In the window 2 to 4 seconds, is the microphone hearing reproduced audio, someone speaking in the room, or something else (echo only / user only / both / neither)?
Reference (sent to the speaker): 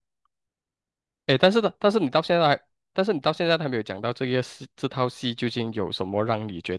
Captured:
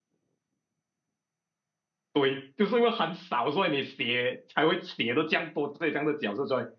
user only